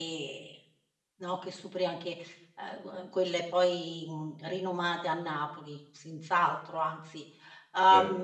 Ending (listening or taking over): listening